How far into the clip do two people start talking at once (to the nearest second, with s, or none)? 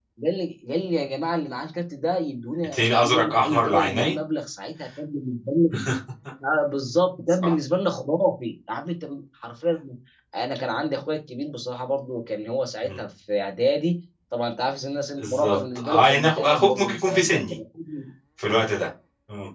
3 s